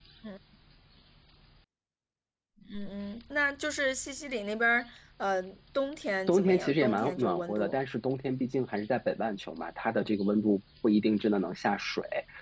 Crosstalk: present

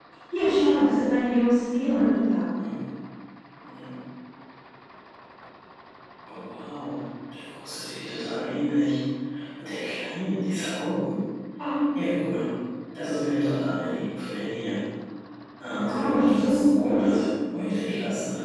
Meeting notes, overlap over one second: present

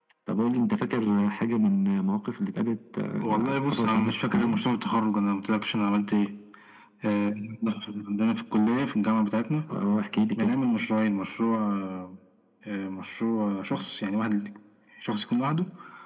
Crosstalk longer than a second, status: present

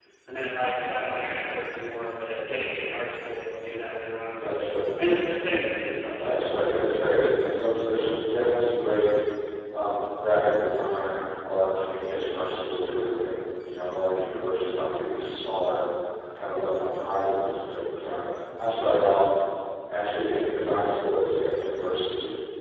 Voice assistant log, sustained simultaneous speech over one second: none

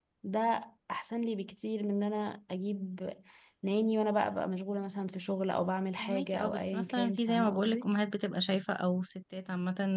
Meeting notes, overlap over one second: present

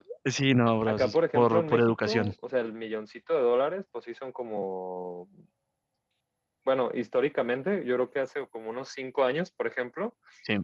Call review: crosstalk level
present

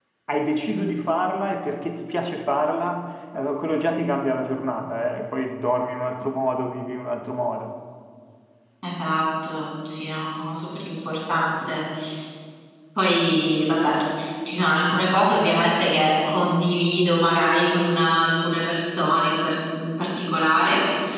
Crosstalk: none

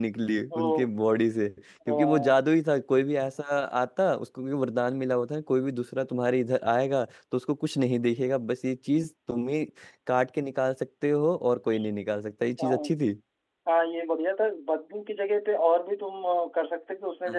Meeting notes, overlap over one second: none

